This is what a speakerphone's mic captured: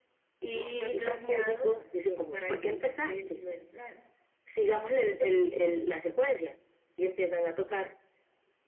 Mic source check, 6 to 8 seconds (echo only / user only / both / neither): echo only